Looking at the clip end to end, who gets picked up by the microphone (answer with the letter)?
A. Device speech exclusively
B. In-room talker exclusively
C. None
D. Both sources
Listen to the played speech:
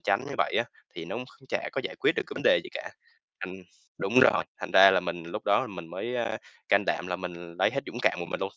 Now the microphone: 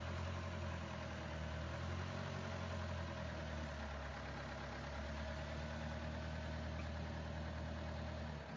C